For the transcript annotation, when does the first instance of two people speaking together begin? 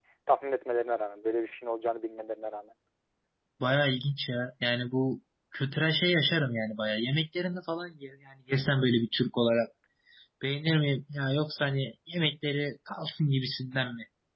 none

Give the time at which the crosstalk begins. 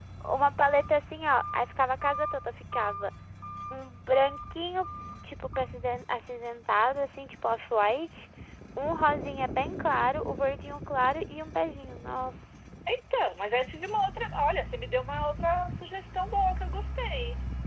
none

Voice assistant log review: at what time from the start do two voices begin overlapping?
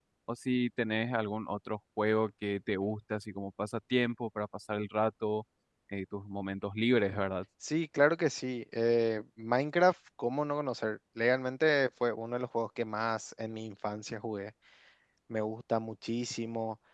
none

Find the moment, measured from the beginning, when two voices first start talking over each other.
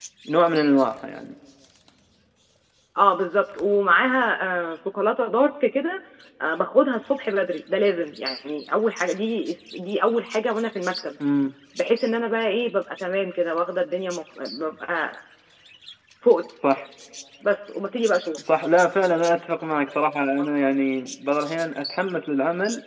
none

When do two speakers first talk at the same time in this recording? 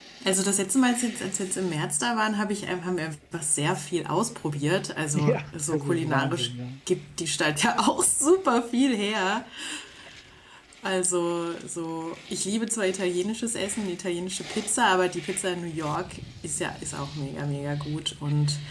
5.1 s

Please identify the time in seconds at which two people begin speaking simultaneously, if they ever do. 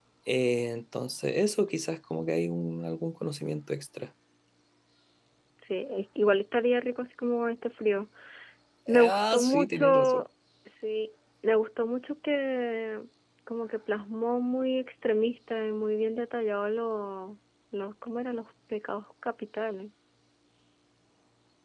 8.9 s

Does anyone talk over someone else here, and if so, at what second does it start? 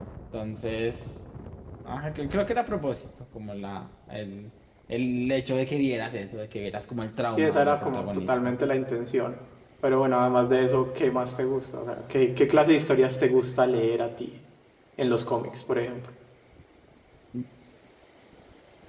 7.4 s

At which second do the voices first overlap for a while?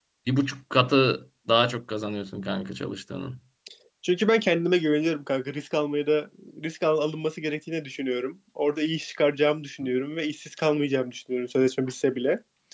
none

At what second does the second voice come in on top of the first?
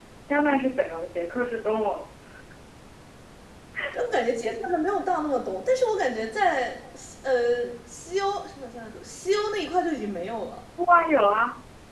none

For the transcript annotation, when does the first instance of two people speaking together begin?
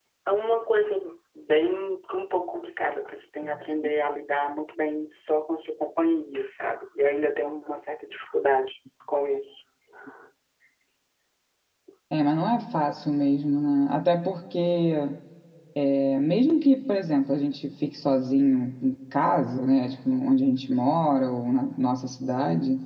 none

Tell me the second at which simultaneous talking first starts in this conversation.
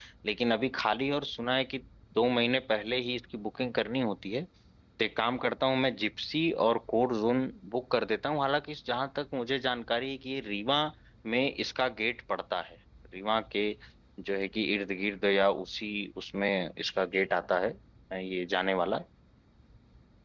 none

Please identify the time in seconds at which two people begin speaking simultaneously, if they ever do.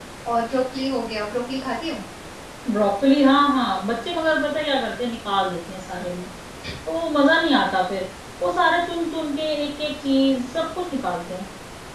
none

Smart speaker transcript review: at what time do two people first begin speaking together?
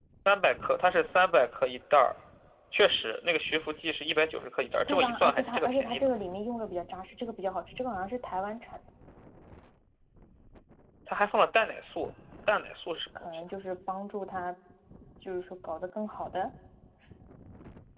4.9 s

